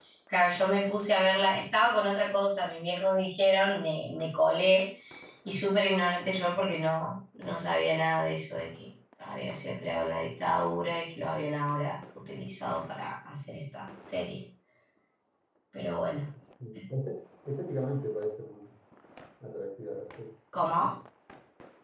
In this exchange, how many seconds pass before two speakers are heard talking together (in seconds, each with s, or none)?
none